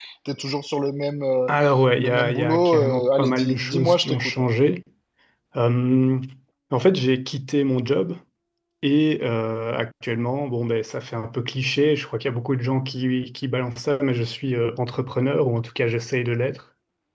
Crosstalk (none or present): present